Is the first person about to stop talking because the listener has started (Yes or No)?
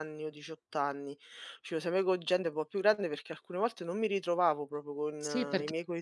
Yes